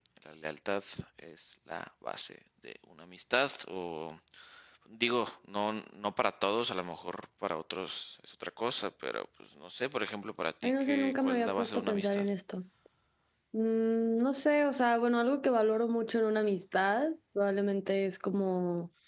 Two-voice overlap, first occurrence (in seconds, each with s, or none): 10.6 s